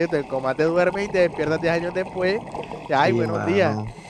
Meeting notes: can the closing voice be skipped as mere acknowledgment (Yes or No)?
No